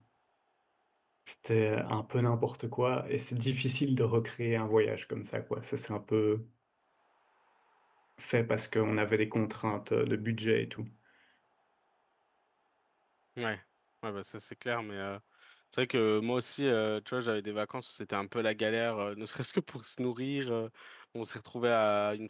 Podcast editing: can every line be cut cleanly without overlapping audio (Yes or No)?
Yes